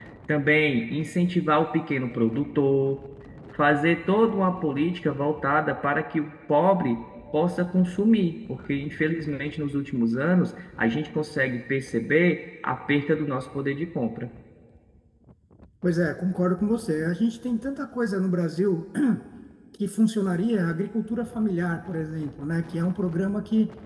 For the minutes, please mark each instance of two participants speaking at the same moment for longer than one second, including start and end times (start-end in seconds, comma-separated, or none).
none